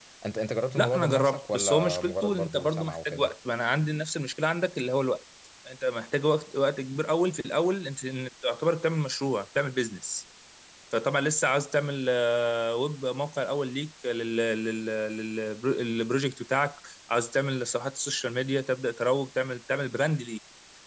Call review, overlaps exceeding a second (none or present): present